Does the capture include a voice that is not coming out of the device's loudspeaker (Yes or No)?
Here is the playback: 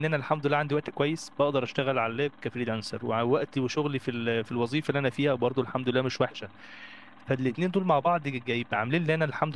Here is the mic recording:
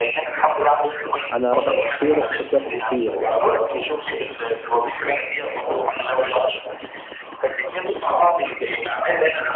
Yes